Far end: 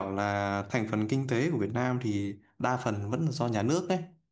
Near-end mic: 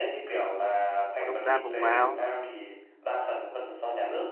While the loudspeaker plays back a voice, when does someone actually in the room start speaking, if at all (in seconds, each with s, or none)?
1.1 s